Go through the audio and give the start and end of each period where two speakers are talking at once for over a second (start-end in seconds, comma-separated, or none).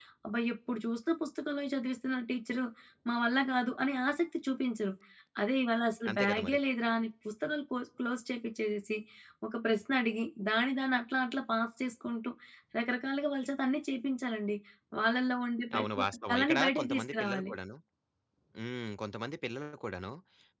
15.8-17.5